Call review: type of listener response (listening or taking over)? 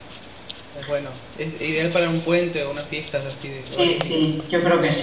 taking over